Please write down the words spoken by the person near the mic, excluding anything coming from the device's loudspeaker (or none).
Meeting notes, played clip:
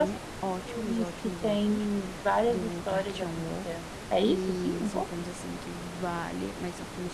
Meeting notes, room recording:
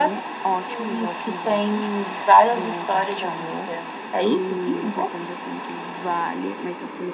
none